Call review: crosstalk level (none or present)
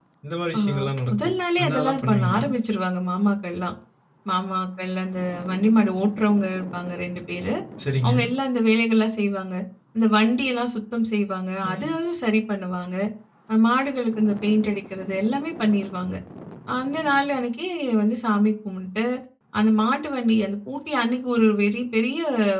present